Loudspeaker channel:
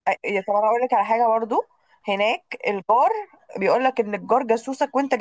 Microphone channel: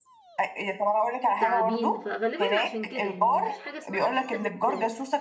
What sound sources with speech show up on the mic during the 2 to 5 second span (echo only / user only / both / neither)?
both